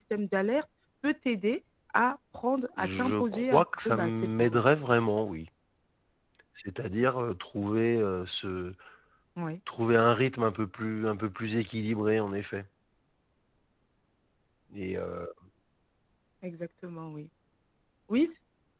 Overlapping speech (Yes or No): Yes